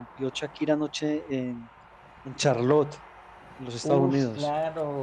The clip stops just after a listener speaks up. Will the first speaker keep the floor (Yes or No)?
No